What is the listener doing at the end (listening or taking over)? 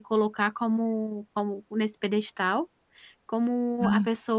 listening